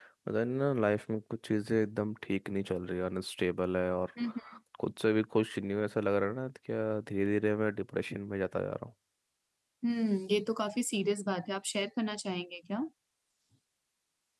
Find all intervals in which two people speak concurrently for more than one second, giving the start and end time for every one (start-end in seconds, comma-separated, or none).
none